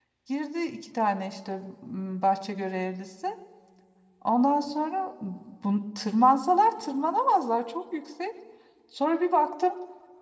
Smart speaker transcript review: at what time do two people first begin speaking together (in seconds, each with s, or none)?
none